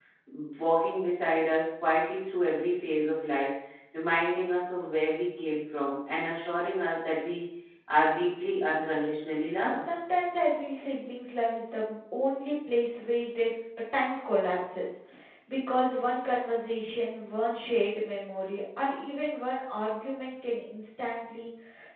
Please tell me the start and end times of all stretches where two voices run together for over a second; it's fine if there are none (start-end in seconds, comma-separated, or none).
none